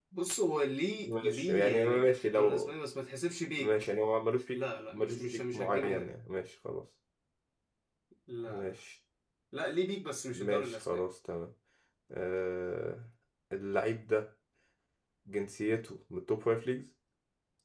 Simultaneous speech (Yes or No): Yes